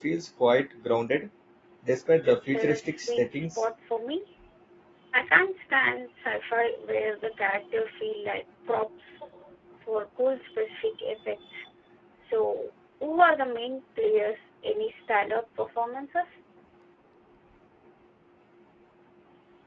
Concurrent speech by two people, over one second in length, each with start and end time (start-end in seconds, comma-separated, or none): 2.2-3.6